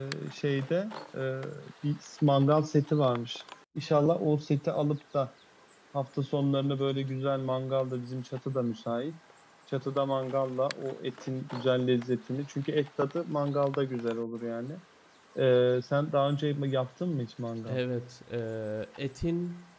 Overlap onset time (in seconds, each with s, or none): none